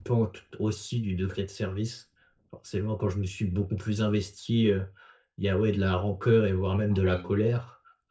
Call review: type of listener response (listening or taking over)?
listening